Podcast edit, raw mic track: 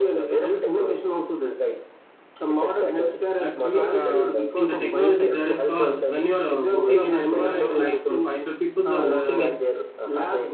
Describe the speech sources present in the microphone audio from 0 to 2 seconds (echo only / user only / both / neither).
echo only